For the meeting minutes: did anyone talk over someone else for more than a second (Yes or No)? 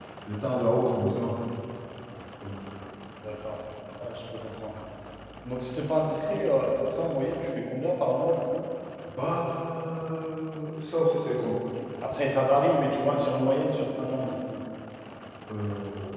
No